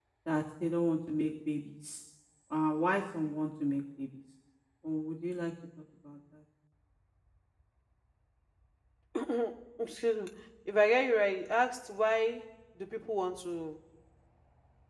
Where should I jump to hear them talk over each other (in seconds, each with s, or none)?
none